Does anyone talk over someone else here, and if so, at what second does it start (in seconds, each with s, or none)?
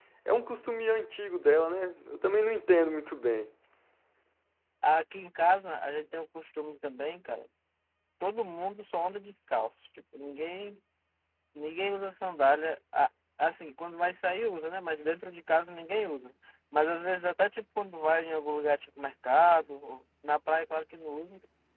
none